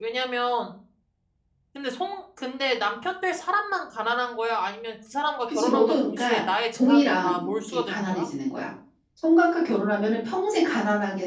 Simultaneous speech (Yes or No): Yes